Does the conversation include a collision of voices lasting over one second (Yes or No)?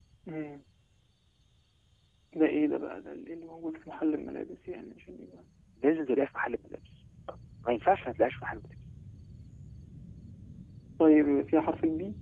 No